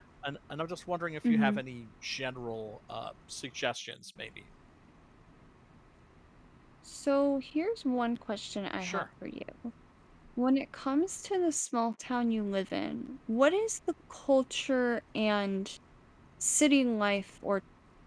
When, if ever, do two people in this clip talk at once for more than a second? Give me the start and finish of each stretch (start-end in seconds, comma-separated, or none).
none